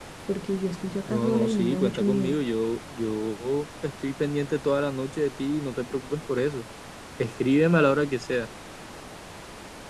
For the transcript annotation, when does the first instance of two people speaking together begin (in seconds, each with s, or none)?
1.1 s